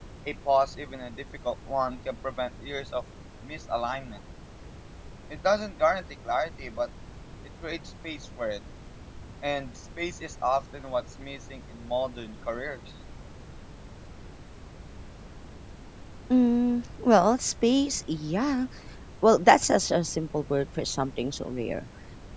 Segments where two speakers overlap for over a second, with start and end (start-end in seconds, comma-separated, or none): none